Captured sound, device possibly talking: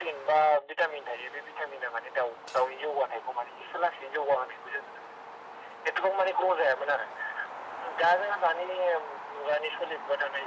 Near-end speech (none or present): none